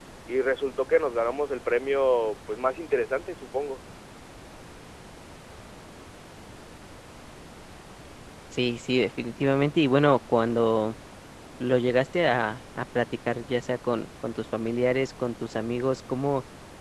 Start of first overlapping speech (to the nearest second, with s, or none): none